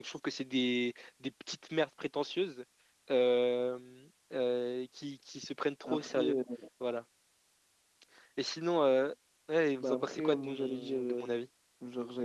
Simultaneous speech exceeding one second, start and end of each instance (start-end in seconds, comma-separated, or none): 9.8-11.3